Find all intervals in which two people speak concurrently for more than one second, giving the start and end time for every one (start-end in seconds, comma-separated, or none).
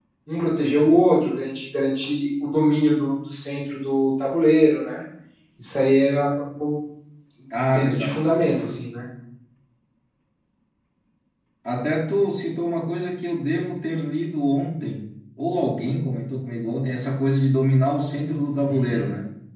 none